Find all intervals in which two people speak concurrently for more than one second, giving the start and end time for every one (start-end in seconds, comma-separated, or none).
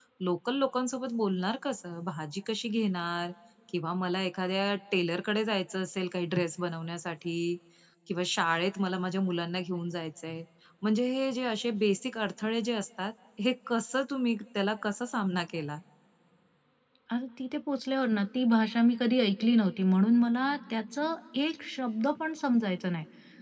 none